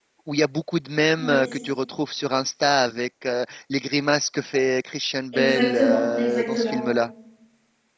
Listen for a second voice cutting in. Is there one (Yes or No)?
Yes